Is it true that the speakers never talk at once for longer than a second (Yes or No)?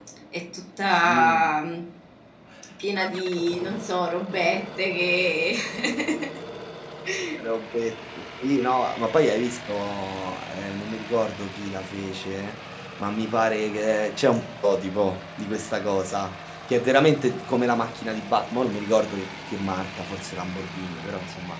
Yes